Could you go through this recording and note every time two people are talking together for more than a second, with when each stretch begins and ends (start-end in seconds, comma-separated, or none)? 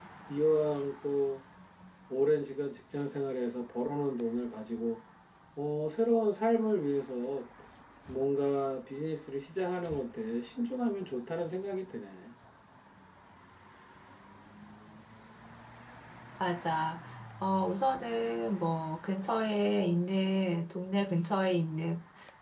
none